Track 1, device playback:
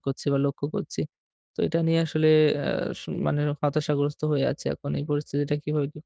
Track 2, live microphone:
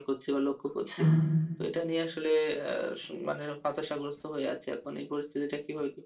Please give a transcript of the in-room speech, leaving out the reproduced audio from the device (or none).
আচ্ছা।